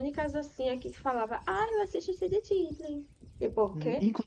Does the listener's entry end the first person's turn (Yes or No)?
Yes